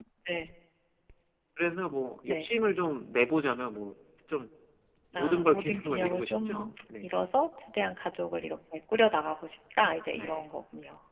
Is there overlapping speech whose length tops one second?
Yes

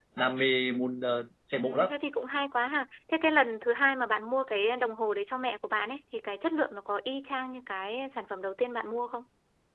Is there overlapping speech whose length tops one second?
No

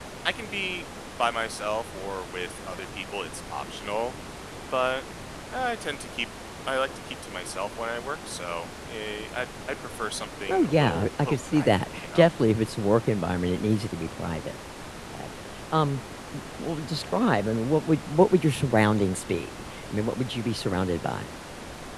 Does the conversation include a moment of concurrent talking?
Yes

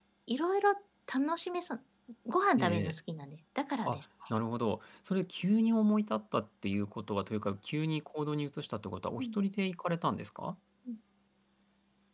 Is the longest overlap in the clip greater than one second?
No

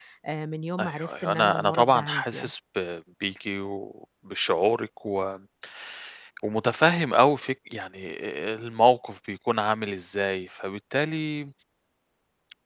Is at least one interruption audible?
Yes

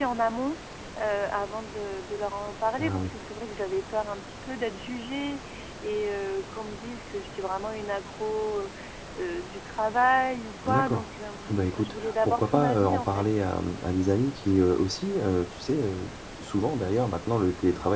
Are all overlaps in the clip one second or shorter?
No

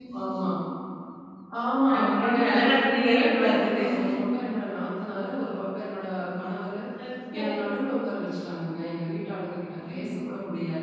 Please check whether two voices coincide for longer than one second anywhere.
Yes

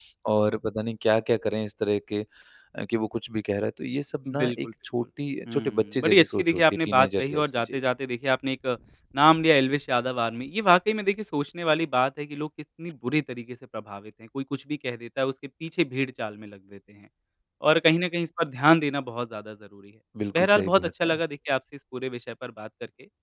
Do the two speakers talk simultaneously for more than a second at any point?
Yes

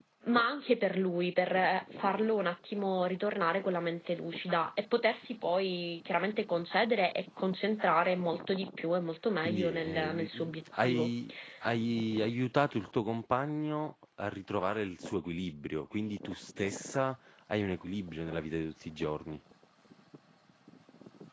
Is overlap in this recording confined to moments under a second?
No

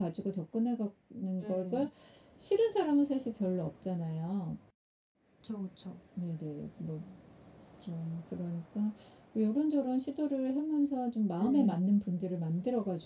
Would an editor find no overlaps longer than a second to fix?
Yes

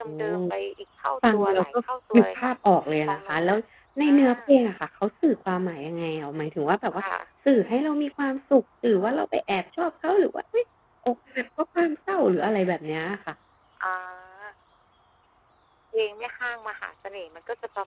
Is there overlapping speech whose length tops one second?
No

